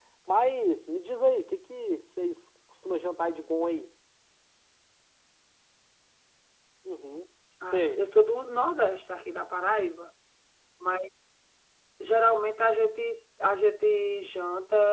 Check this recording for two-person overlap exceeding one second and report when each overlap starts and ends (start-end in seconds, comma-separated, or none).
none